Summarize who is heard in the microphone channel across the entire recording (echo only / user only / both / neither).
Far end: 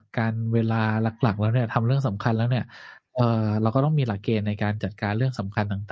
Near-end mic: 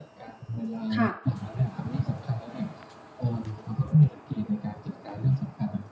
both